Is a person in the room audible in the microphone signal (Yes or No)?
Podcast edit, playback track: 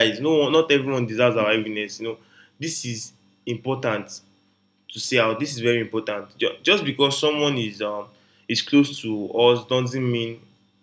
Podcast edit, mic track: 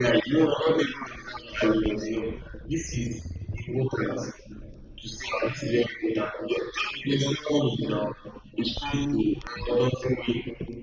No